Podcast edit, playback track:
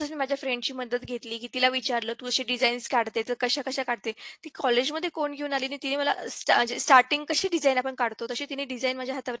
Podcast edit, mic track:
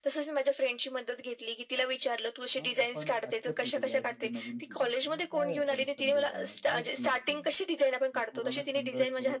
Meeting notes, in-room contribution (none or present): present